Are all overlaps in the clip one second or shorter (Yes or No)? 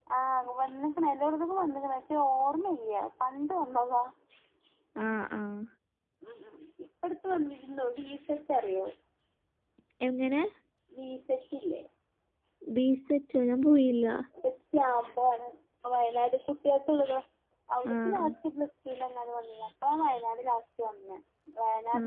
Yes